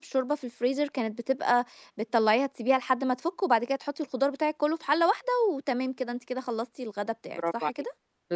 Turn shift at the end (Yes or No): Yes